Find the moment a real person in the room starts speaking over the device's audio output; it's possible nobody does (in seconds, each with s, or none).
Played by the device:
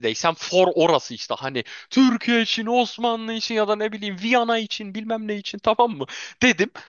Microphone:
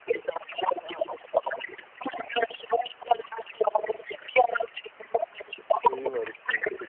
5.7 s